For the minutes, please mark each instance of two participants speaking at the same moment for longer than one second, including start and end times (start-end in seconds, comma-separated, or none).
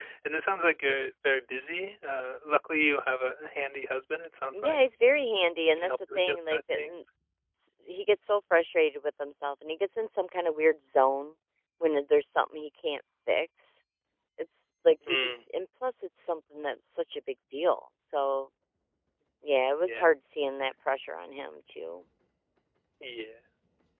5.8-7.0